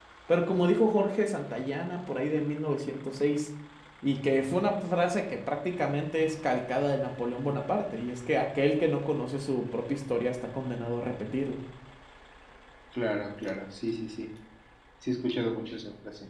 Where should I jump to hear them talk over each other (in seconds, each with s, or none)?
none